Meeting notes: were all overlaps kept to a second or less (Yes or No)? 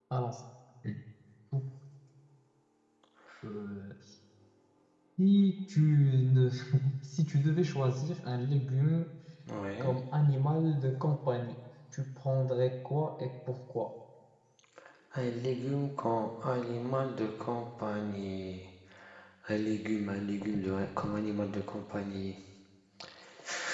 Yes